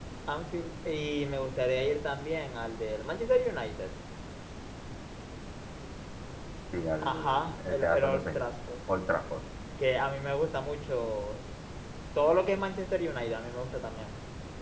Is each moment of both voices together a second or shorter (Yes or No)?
No